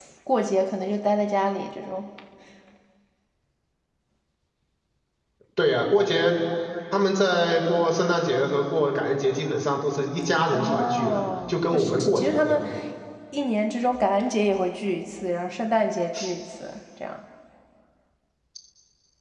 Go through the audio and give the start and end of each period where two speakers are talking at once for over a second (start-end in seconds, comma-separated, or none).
10.5-12.6